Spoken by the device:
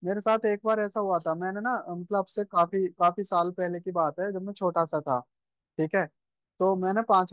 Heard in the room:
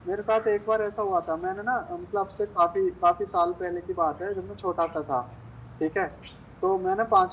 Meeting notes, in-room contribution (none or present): none